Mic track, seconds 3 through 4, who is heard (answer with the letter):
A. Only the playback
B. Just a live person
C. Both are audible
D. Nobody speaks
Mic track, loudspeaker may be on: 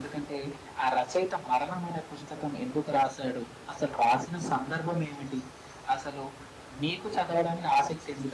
A